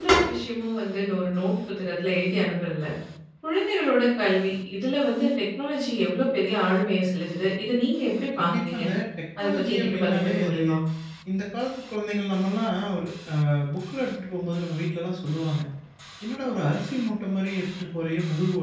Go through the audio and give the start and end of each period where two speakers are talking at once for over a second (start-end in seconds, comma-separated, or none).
9.4-10.6